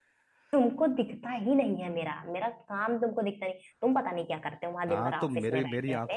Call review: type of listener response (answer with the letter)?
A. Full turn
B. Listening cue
A